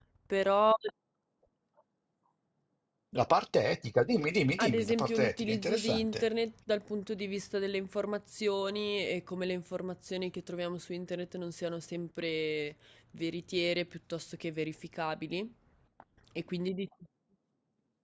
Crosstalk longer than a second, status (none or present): present